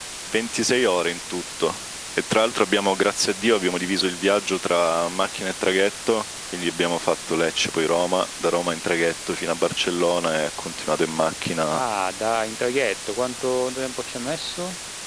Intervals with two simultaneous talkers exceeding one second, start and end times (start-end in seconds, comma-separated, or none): none